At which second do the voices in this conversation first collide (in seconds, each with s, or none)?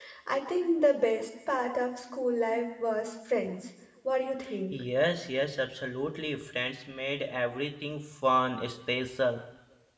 none